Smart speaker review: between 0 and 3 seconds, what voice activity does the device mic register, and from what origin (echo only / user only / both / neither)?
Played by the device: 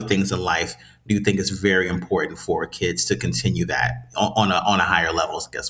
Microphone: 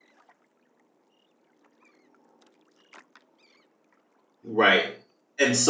neither